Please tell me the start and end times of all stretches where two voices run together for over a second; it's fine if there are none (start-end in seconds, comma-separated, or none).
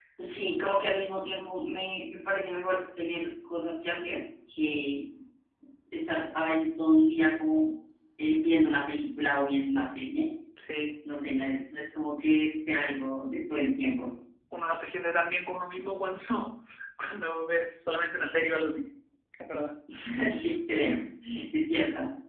none